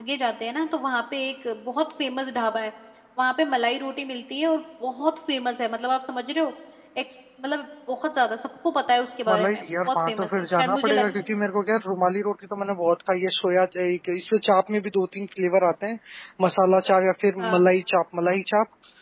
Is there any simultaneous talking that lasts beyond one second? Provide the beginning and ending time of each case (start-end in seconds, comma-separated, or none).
9.3-11.1